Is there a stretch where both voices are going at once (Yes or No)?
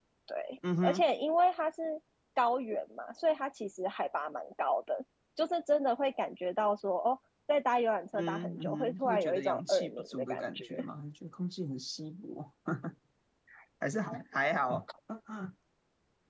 Yes